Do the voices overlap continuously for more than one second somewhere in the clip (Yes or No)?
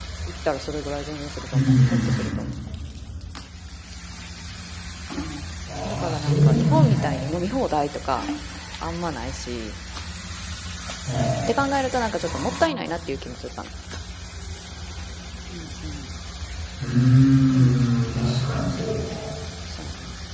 Yes